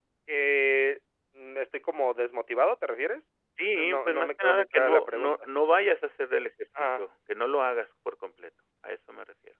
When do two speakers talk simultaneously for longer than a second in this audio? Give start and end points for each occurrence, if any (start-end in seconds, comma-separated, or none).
3.8-5.3